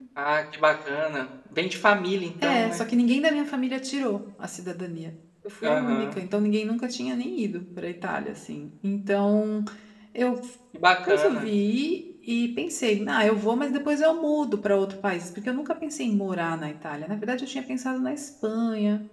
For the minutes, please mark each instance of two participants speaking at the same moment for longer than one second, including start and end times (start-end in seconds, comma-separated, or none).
none